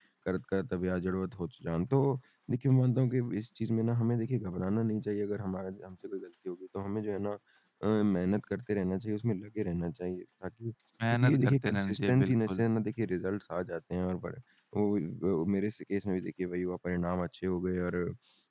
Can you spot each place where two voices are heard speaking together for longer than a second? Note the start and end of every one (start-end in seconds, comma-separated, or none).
11.1-12.7